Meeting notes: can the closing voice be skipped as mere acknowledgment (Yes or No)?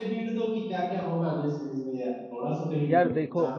No